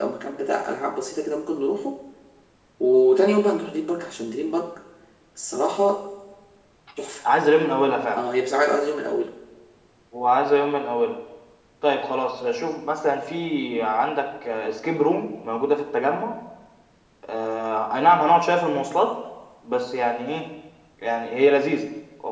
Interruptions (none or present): none